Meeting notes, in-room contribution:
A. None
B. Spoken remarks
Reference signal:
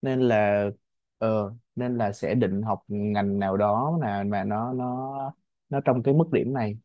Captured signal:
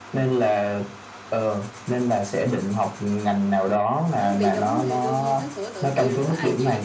B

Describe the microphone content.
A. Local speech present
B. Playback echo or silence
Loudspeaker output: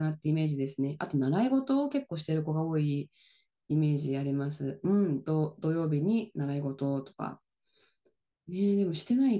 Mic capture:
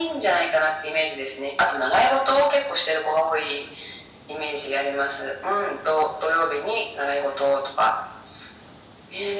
B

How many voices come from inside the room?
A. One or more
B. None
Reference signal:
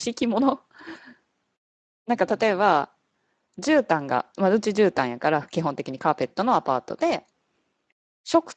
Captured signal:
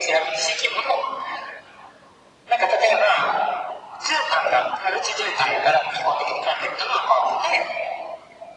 B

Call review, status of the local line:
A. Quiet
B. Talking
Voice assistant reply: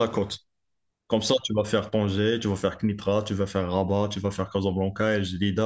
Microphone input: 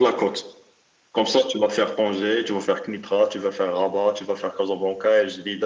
A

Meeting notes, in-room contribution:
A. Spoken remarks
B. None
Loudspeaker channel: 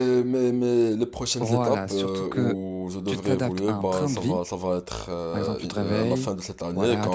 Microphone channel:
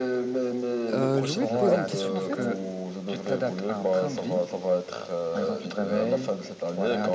A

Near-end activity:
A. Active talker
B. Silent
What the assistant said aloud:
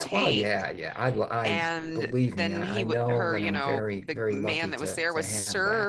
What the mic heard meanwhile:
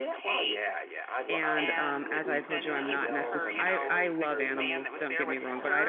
A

